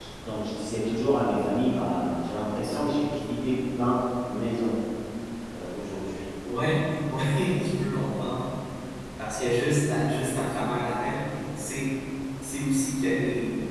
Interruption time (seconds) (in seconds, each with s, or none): none